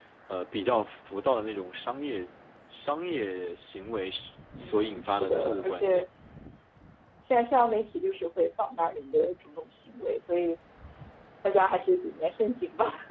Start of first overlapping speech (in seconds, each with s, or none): 4.6 s